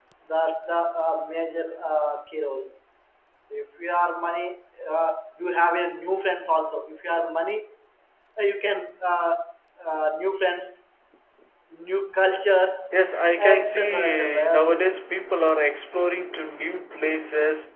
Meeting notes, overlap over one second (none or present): present